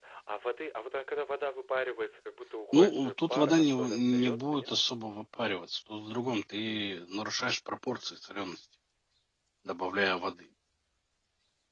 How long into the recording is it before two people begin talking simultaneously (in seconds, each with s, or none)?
2.7 s